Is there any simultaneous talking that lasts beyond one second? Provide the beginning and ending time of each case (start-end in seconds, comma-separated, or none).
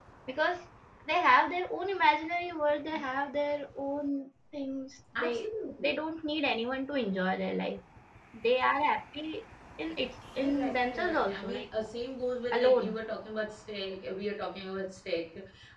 10.4-11.6